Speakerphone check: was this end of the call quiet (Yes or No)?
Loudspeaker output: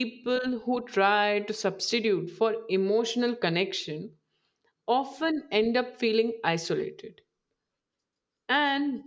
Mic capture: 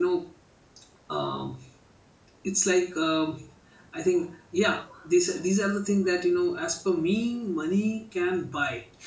No